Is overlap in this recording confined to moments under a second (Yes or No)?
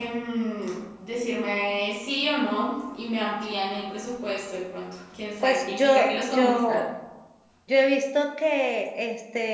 No